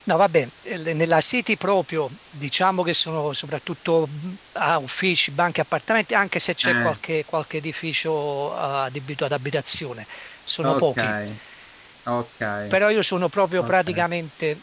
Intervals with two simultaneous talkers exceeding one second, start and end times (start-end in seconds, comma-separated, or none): none